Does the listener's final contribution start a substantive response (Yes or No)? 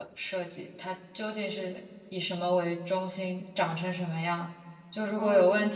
No